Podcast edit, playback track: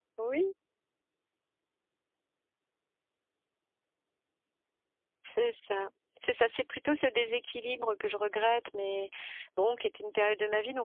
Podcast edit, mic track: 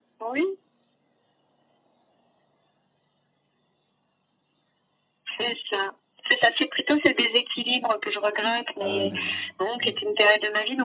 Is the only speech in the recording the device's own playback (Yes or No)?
No